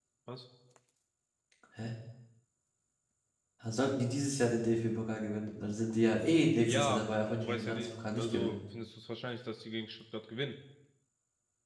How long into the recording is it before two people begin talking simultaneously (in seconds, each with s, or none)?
6.5 s